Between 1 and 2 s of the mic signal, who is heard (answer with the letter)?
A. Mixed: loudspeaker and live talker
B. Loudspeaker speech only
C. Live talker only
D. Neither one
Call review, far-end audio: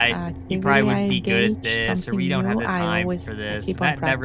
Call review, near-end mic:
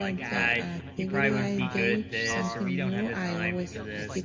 A